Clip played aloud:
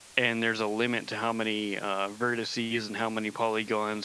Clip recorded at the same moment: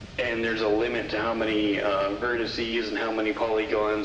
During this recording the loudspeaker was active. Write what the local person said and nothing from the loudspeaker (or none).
none